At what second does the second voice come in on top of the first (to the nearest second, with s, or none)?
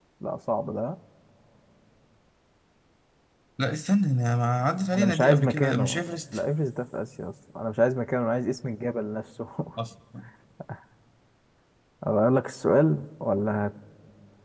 5 s